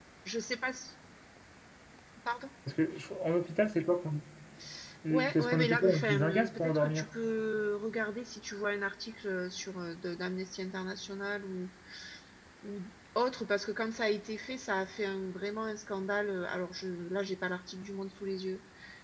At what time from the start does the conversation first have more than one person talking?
5 s

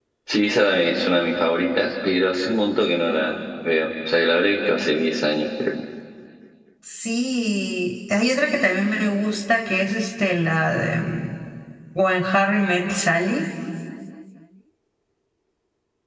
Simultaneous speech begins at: none

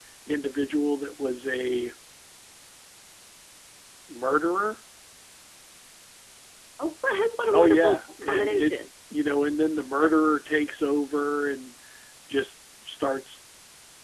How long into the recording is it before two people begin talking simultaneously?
8 s

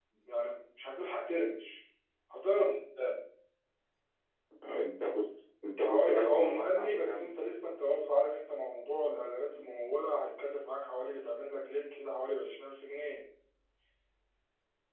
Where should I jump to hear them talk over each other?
6 s

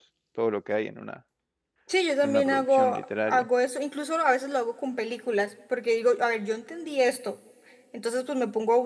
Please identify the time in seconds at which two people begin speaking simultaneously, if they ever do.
2 s

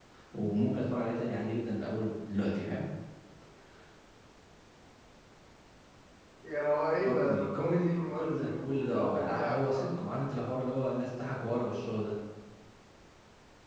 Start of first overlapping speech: 7 s

